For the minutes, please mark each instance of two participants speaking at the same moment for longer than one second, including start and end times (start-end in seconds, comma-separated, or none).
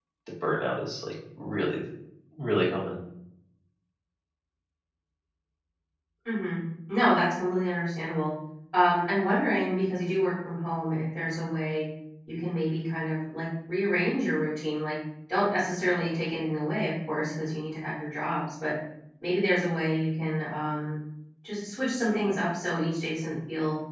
none